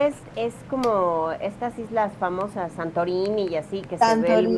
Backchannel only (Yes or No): No